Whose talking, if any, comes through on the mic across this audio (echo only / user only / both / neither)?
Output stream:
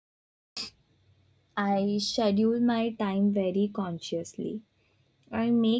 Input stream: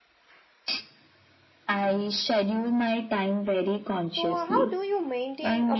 both